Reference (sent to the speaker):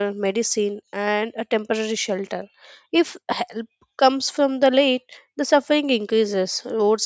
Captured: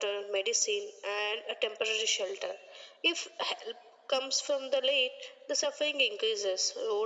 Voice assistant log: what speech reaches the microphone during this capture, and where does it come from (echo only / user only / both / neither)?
echo only